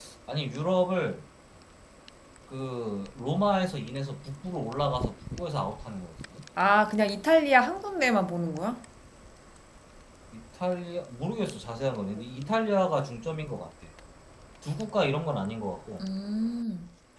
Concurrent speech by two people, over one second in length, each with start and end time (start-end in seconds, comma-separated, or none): none